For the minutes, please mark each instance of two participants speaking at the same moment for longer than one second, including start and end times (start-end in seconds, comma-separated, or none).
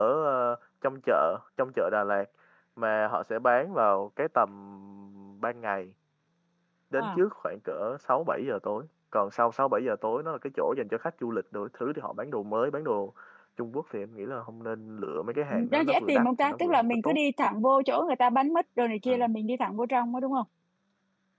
15.5-17.2